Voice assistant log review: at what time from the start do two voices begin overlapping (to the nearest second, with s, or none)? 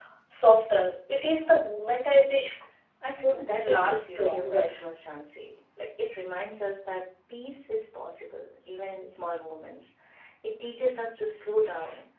3 s